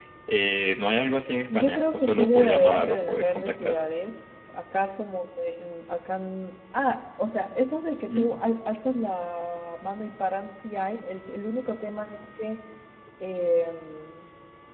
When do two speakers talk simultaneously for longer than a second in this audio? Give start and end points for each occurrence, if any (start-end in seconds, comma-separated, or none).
1.6-3.8